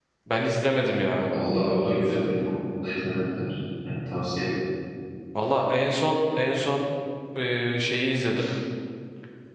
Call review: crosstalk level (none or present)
none